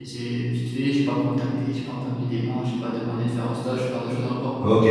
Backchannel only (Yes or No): No